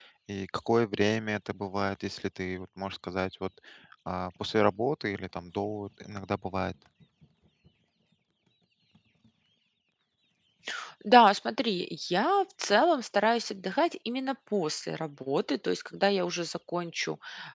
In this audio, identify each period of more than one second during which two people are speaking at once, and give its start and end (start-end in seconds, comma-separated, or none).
none